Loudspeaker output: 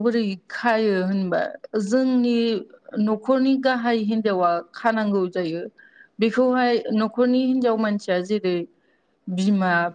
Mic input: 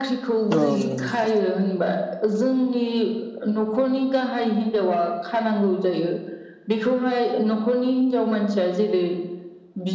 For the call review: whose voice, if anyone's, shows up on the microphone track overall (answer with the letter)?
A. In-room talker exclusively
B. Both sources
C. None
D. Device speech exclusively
B